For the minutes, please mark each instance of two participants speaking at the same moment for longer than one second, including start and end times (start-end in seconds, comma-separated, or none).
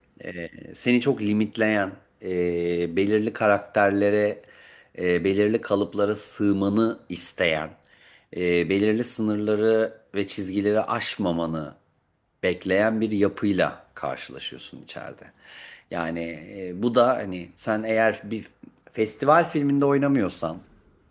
none